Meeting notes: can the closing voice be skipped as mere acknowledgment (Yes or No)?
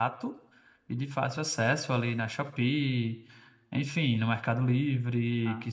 Yes